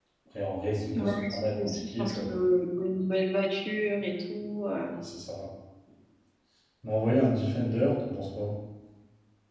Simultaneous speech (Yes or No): Yes